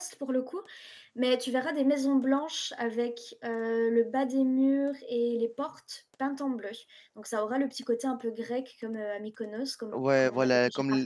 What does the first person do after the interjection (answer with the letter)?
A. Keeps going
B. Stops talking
B